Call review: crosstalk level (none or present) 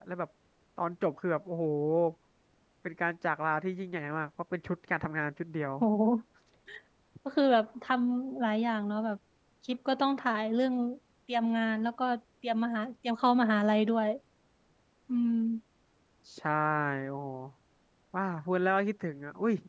none